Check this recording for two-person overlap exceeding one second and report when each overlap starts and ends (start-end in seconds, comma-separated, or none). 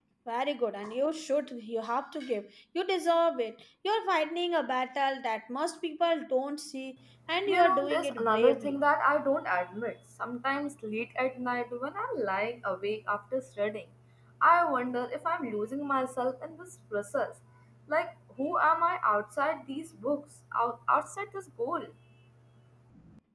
7.5-8.8